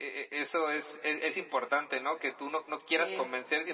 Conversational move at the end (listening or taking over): listening